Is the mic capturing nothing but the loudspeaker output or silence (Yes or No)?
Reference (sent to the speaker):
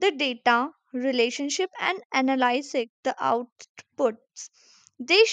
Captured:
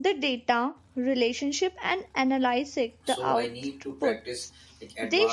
No